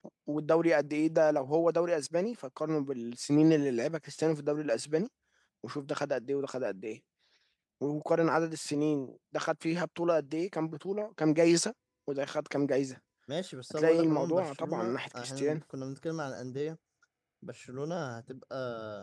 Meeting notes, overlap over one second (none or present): present